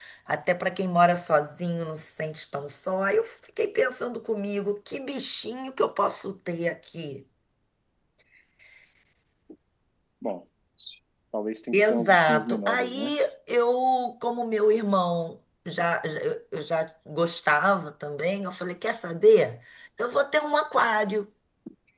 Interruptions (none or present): present